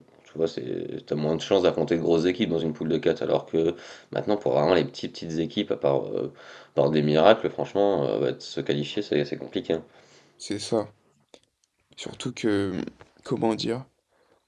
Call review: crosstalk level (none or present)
none